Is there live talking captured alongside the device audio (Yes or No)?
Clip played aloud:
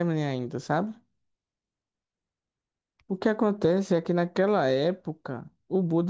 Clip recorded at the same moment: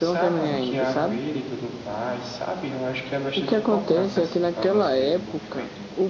Yes